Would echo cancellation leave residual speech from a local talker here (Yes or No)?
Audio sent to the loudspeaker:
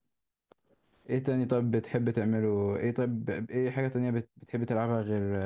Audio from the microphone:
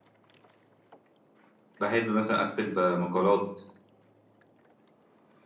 Yes